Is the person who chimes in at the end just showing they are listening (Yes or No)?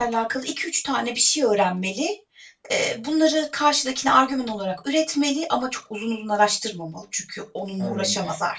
No